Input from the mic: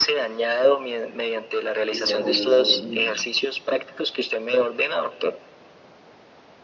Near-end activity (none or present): present